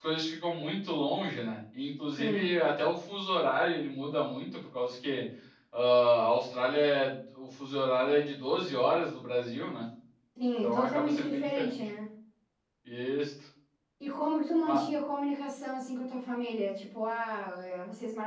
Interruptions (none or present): present